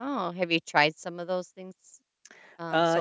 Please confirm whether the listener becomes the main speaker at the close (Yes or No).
Yes